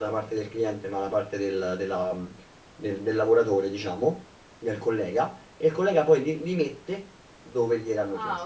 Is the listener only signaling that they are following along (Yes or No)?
No